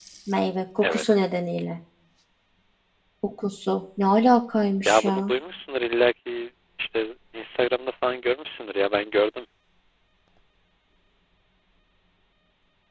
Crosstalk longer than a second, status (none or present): none